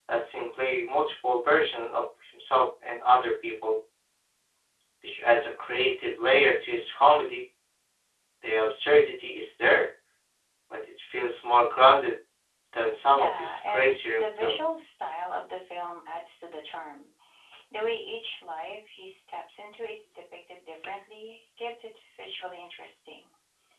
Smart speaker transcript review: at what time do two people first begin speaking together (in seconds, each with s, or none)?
13.1 s